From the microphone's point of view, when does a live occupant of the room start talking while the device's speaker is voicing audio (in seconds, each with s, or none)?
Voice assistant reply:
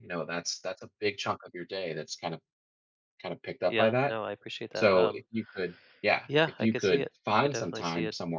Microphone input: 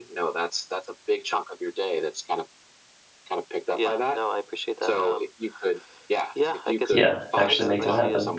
6.9 s